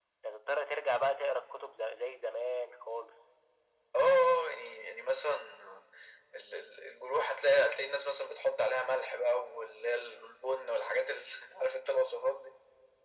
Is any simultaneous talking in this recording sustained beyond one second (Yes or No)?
No